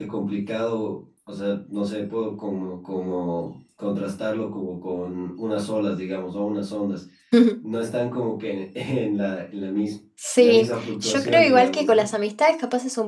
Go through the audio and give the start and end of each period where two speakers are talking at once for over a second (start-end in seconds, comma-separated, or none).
10.4-12.1